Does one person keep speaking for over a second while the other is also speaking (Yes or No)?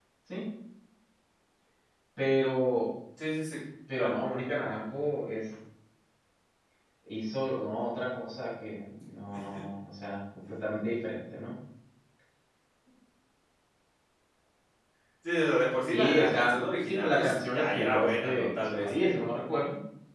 Yes